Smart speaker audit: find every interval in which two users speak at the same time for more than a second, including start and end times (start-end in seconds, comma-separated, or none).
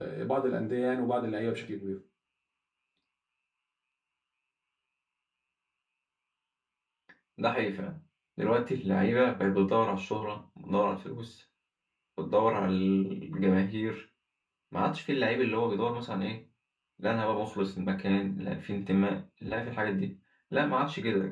none